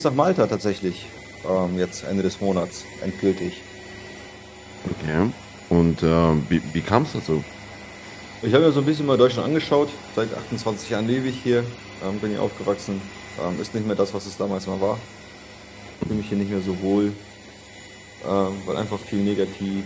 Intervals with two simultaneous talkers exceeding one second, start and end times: none

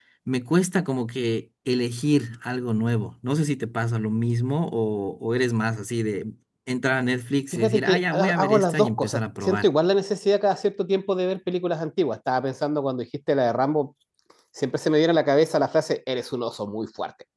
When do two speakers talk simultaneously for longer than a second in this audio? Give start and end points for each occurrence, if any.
7.5-9.7

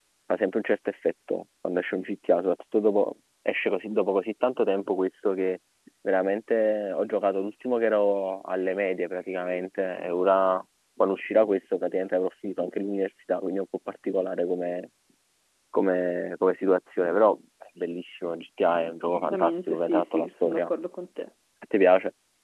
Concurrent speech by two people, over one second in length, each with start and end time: 19.3-20.7

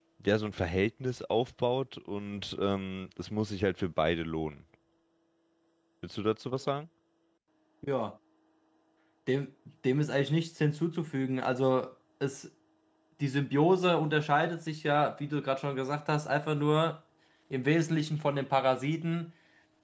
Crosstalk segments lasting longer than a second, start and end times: none

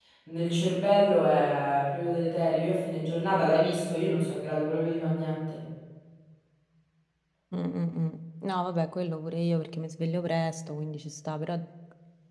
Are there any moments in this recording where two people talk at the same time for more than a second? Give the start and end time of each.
none

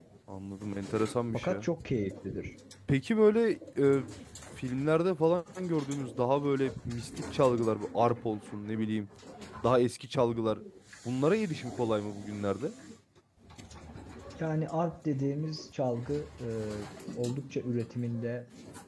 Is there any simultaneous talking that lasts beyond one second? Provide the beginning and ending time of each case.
none

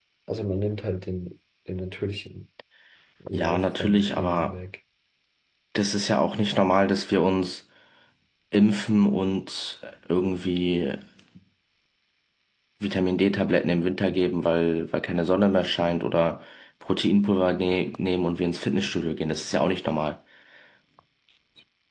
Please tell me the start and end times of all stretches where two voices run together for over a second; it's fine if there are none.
3.3-4.5

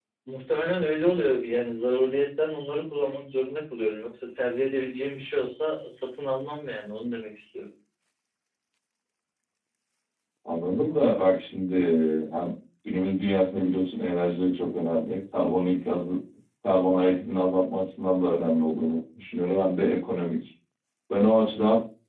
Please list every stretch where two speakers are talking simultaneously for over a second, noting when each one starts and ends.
none

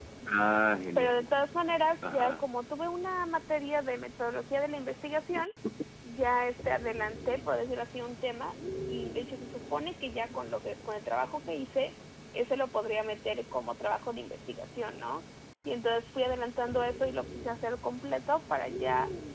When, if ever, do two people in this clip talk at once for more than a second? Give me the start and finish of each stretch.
none

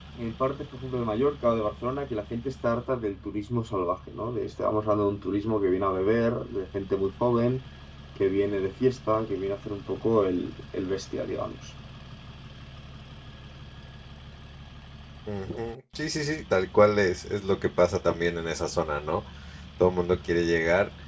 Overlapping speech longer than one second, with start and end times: none

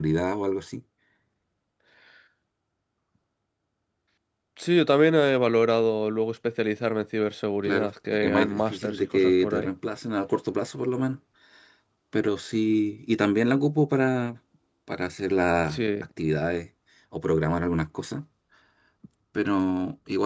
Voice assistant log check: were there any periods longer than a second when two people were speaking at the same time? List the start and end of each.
7.6-9.7

